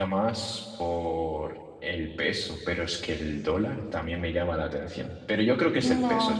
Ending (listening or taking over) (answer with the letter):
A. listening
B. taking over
B